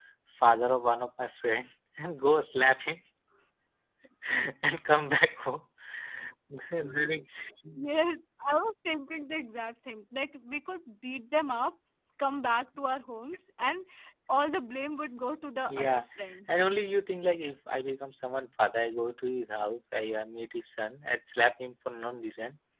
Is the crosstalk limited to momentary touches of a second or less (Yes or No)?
Yes